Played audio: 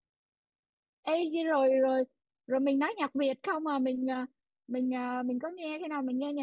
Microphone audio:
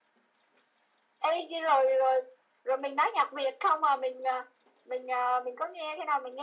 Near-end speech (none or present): none